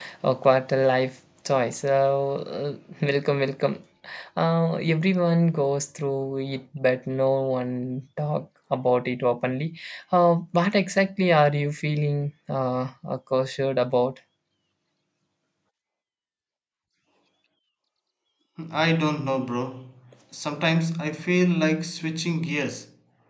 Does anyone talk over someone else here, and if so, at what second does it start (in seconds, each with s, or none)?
none